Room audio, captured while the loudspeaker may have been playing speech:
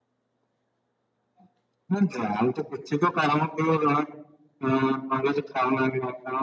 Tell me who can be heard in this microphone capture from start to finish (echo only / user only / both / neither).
echo only